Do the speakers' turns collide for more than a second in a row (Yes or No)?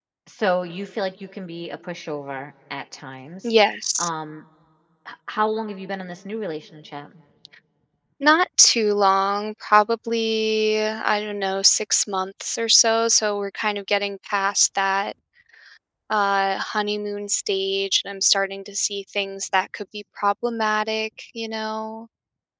No